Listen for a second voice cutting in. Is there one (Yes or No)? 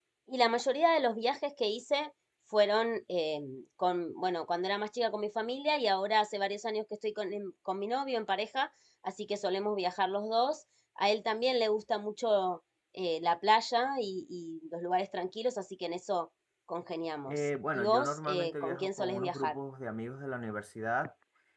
Yes